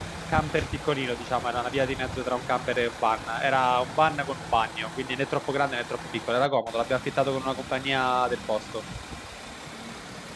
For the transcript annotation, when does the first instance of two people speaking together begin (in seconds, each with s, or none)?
none